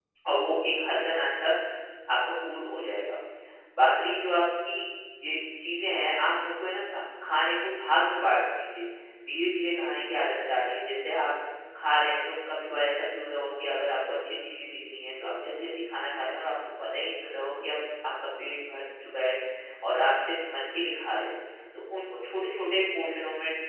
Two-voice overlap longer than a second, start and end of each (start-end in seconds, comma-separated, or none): none